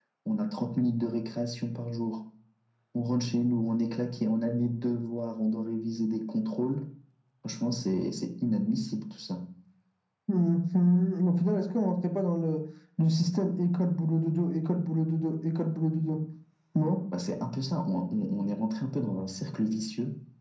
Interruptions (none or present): none